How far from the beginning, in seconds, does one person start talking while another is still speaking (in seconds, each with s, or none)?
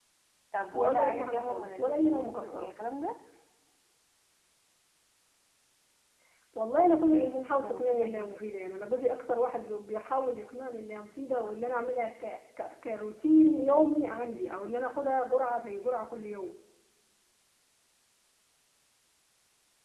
0.8 s